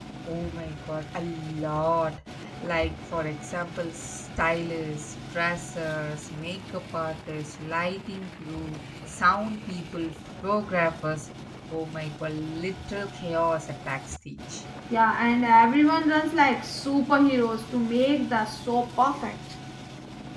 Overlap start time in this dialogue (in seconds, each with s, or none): none